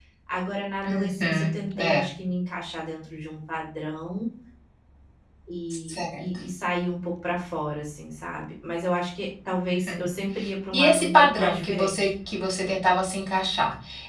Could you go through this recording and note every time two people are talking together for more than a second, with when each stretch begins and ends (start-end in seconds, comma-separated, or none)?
0.8-2.0, 10.7-12.1